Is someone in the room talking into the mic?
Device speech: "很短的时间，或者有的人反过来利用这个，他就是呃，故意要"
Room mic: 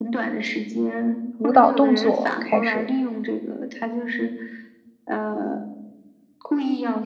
Yes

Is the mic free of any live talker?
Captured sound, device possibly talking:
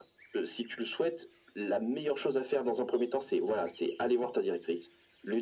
Yes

